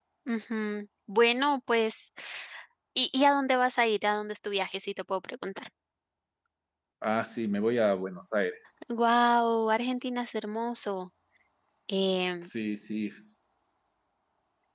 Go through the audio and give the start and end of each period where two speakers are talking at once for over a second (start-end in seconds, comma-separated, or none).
none